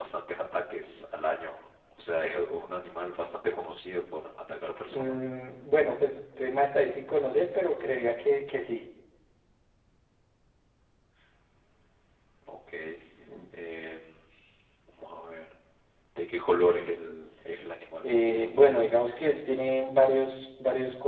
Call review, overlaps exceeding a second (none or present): none